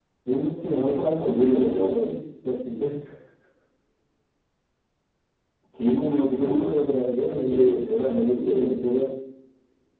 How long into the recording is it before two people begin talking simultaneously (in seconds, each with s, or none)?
0.7 s